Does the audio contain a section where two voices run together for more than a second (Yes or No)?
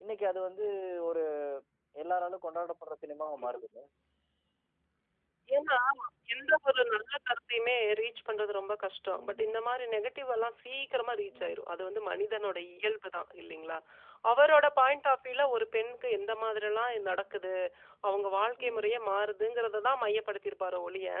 No